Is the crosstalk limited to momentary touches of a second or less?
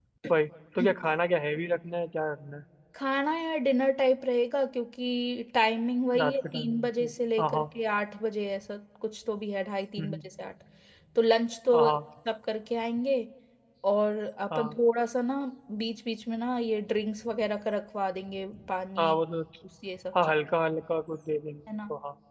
No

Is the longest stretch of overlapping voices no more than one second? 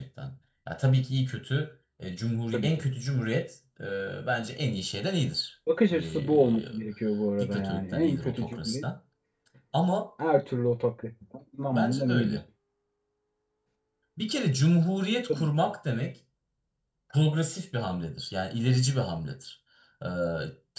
No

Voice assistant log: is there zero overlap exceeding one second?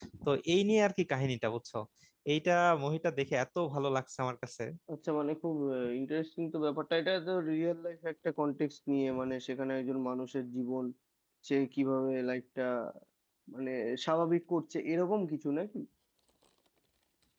Yes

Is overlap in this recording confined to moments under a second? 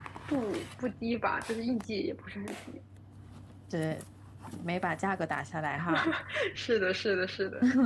Yes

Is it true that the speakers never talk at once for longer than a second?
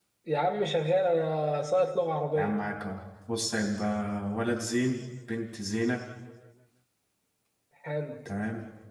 Yes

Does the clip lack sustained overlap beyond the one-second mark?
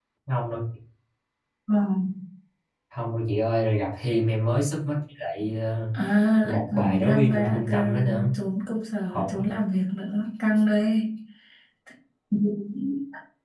No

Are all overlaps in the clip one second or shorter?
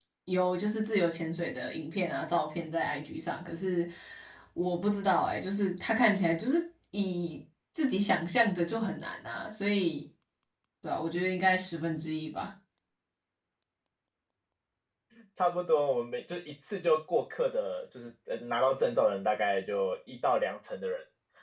Yes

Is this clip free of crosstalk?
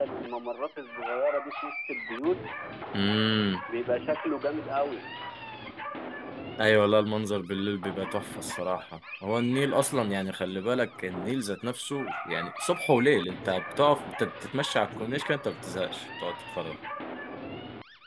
Yes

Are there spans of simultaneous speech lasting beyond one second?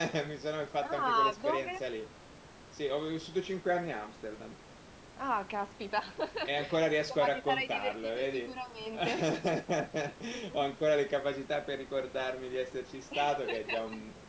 Yes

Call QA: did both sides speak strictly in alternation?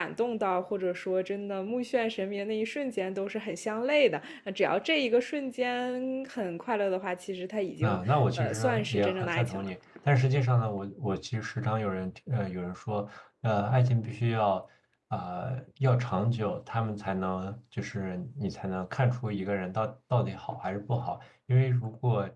No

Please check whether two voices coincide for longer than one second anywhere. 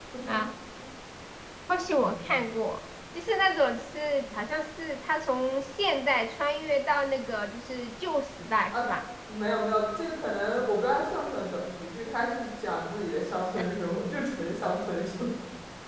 No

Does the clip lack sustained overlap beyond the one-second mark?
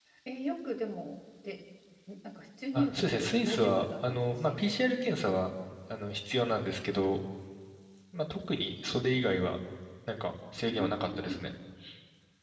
No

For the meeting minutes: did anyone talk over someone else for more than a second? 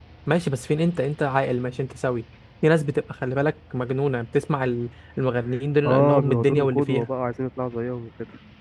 Yes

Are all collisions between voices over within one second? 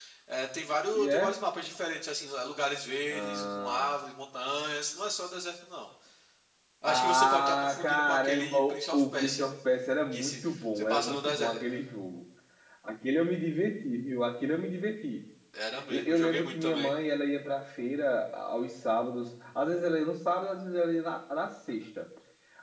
No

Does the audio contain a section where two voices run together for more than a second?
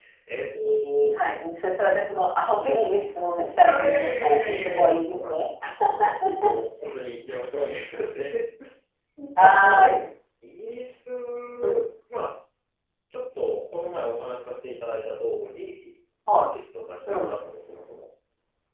Yes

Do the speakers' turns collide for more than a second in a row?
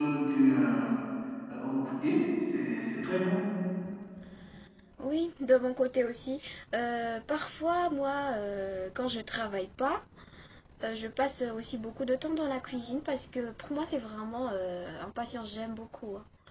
No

